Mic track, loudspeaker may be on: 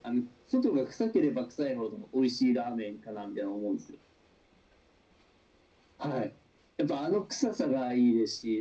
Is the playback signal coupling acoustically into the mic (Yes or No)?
Yes